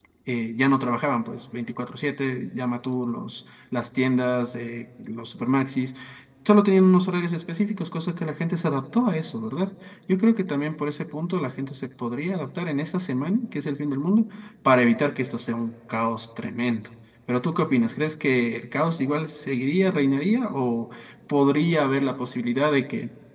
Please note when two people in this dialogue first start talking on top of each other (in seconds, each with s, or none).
none